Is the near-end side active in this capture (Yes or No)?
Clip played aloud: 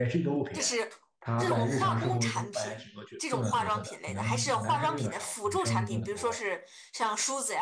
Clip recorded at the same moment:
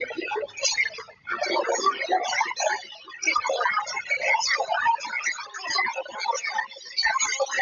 No